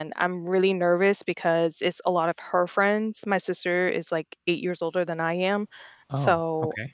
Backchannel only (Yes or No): Yes